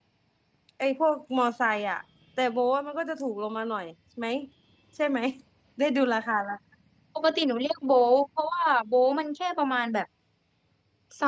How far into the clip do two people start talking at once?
none

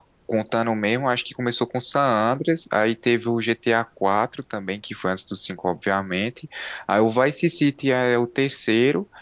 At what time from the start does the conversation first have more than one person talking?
none

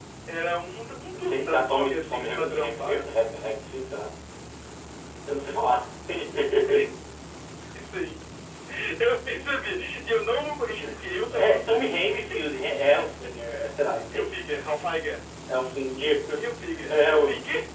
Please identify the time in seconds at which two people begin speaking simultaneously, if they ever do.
1 s

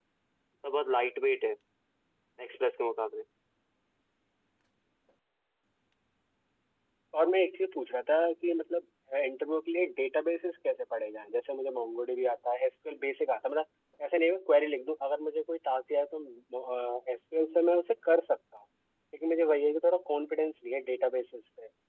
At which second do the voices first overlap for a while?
none

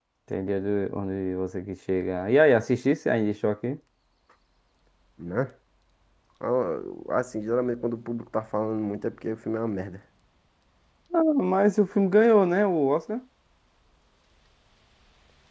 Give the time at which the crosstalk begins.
none

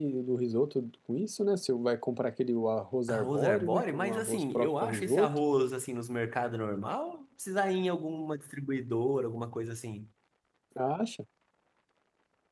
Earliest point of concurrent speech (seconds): 3 s

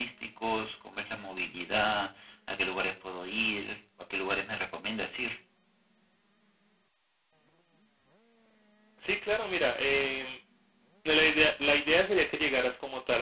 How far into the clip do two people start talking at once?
none

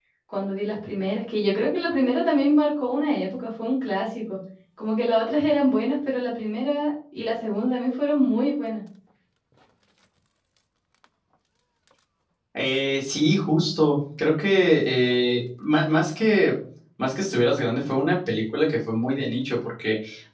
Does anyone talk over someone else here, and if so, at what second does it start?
none

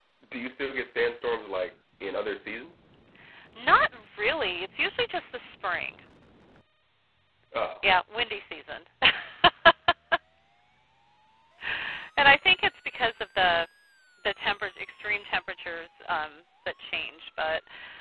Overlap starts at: none

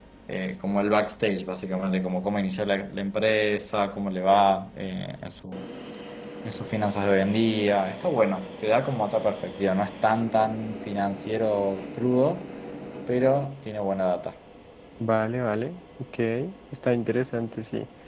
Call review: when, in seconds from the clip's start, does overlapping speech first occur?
none

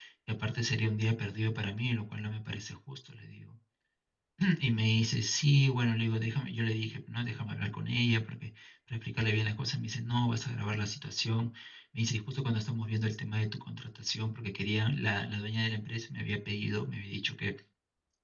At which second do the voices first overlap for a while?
none

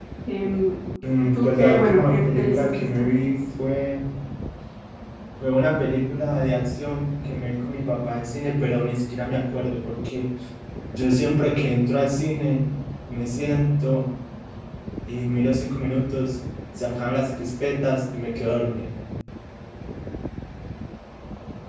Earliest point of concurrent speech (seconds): 1 s

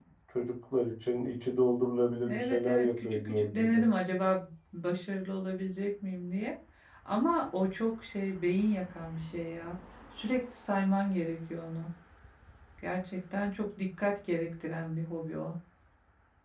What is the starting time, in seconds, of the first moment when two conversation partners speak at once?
2 s

